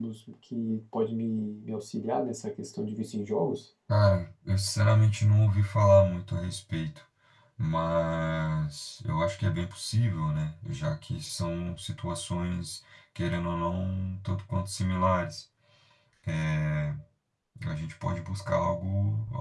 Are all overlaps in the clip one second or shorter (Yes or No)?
Yes